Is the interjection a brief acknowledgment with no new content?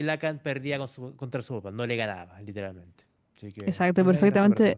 No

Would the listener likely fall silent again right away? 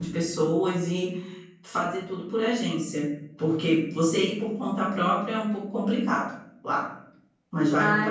No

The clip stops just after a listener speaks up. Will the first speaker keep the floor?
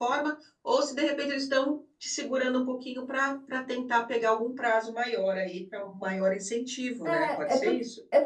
No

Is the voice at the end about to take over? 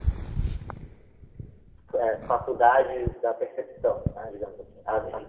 No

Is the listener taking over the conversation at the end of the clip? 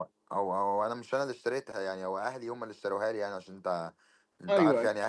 No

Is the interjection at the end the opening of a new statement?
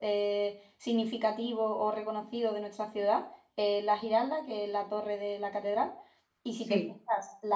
No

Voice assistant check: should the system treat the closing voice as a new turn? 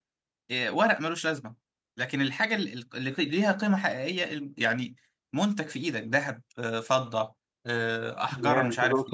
Yes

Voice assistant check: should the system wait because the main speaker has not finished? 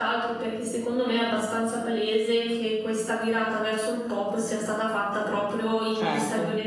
Yes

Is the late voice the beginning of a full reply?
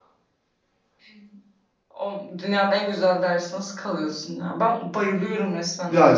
Yes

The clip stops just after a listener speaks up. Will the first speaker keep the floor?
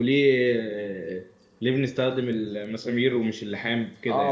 No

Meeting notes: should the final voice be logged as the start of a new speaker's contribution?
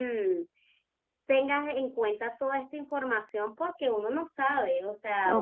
Yes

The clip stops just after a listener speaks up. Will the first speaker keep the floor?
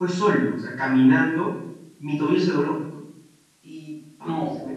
Yes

